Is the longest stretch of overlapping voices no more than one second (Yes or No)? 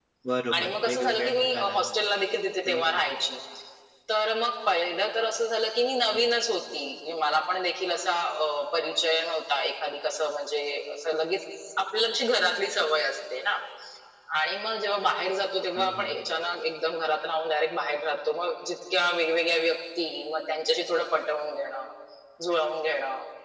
No